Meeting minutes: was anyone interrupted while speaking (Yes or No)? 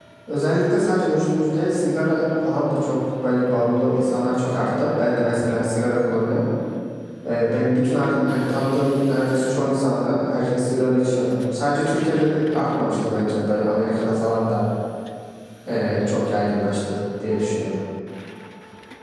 No